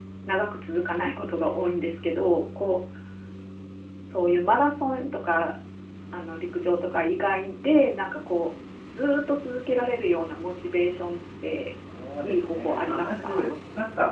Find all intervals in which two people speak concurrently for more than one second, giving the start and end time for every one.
12.2-13.5

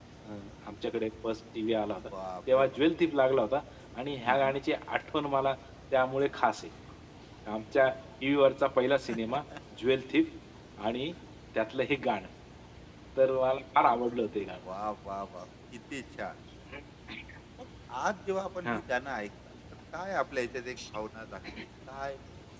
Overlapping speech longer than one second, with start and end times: none

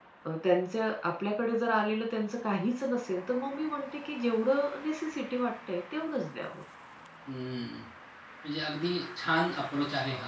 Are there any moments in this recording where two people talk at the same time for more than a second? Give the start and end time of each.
none

